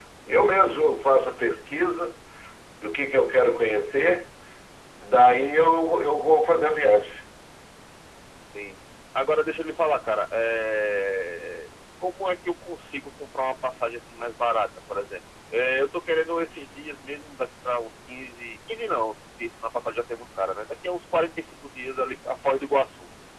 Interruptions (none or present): none